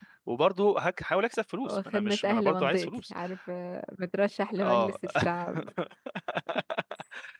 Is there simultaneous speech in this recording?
Yes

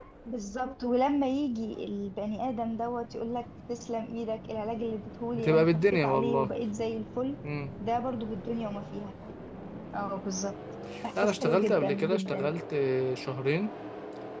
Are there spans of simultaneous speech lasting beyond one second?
Yes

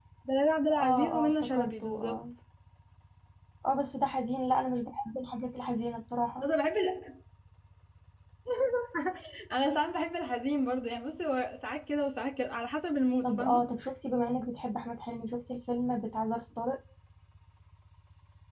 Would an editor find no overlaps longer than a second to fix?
No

